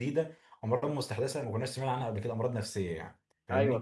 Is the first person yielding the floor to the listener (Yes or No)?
Yes